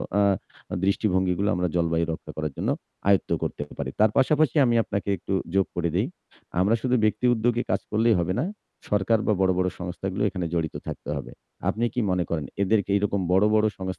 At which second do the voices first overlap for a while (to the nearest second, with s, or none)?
none